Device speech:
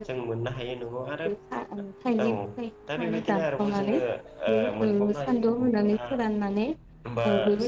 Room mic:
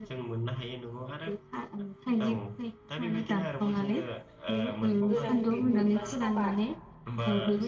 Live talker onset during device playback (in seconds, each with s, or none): 5.1 s